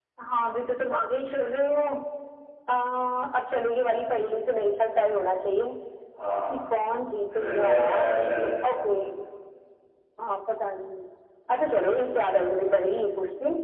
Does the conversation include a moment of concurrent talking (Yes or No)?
Yes